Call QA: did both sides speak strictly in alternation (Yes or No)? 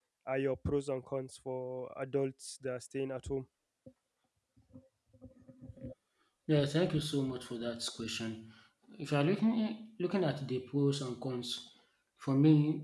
Yes